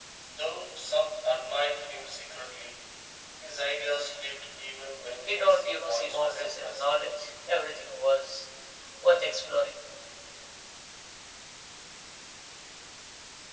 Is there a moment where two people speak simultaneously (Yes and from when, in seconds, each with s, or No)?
Yes, from 5.3 s